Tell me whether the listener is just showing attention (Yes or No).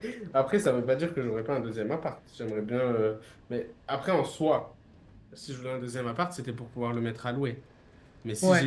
Yes